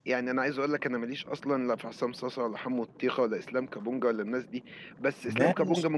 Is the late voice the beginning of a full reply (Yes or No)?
No